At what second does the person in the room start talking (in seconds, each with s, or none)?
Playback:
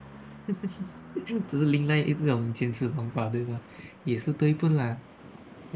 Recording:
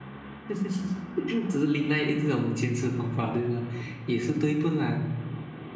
none